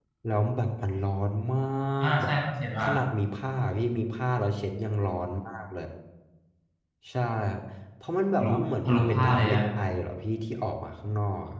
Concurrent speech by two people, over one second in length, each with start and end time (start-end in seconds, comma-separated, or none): 8.4-9.6